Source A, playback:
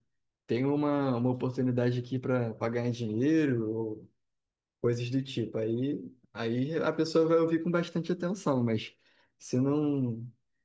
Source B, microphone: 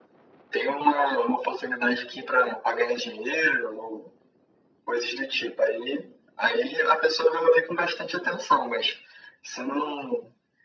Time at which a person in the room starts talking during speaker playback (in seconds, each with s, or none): none